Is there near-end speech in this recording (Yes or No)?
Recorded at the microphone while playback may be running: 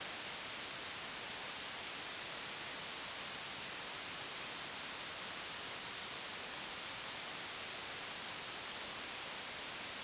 No